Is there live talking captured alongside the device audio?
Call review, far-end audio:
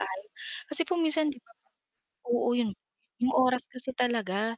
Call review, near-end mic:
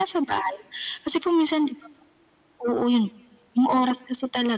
No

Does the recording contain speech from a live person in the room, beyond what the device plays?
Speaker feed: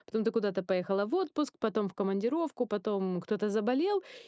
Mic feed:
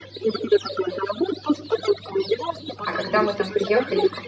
Yes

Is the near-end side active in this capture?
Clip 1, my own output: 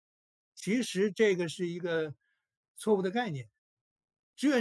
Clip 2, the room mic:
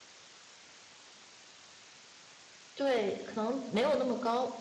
Yes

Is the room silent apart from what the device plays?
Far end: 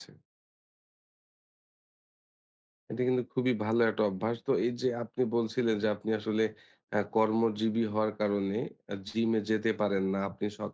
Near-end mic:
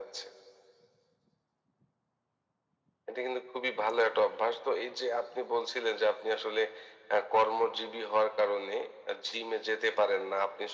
Yes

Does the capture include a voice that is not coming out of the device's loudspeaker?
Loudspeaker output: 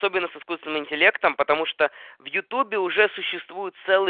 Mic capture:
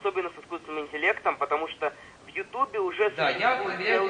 Yes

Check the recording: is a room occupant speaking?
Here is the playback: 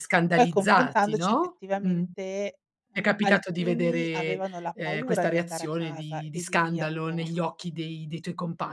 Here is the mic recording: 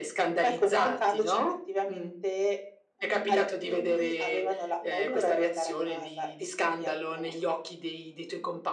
No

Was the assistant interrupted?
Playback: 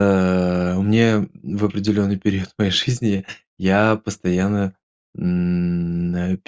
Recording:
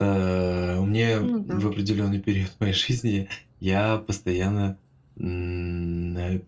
Yes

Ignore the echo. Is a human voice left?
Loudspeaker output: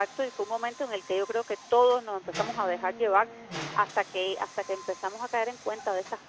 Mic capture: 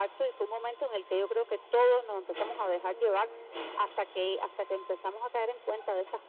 No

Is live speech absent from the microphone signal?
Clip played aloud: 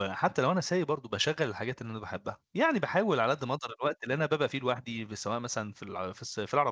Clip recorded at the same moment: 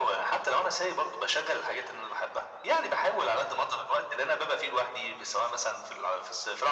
Yes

